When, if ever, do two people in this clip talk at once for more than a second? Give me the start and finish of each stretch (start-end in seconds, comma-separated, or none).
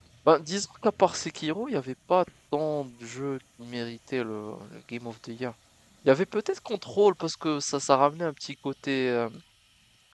none